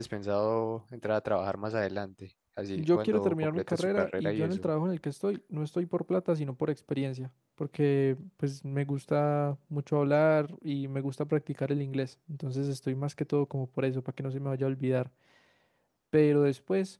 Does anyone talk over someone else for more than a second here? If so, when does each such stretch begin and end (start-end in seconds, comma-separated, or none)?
2.8-4.7